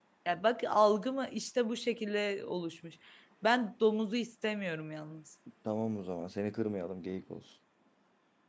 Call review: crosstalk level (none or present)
none